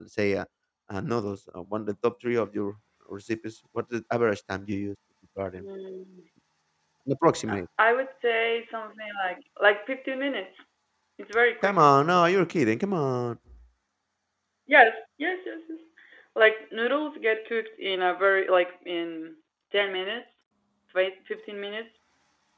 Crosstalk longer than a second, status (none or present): none